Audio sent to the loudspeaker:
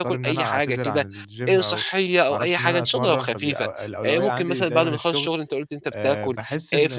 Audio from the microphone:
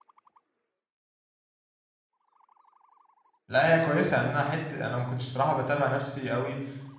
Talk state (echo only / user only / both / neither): user only